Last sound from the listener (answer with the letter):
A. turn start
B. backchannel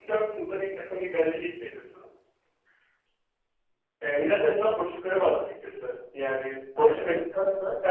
B